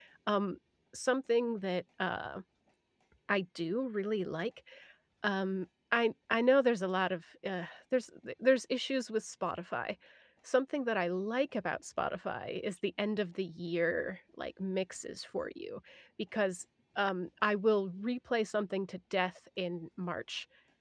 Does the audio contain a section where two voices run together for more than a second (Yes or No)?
No